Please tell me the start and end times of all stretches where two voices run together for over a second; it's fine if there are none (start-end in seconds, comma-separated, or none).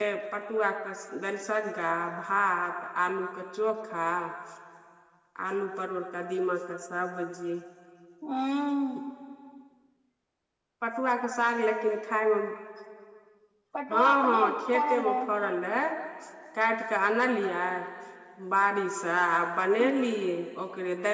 13.9-15.2